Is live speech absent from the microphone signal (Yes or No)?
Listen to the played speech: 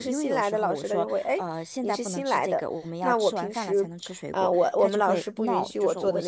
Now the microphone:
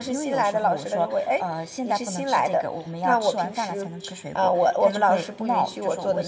Yes